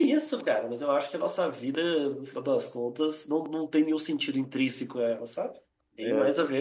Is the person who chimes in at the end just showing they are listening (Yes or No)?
Yes